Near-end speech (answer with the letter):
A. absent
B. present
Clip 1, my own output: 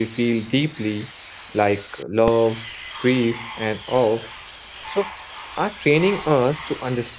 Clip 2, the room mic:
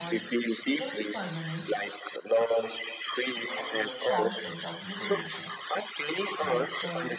B